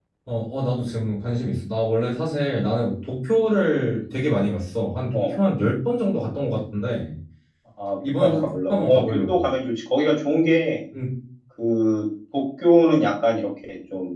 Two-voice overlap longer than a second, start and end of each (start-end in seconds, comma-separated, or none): 8.2-9.4